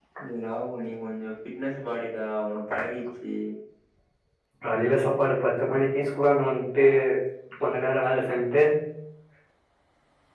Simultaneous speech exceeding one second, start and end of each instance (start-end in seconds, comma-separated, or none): none